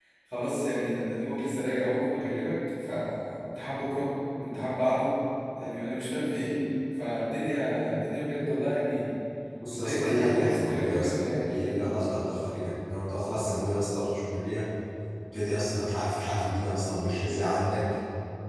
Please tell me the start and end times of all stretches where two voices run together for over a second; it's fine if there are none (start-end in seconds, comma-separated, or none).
9.7-11.8